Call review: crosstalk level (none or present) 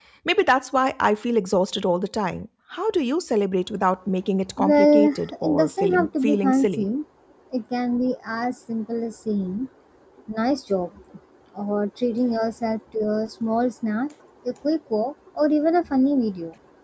present